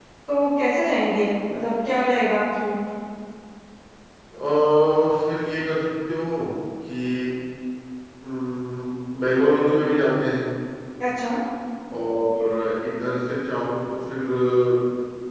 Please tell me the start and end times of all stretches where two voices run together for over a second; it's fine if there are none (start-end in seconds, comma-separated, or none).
none